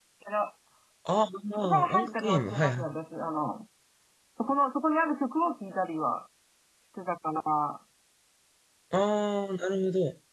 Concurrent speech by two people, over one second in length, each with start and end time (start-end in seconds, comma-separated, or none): 1.5-2.8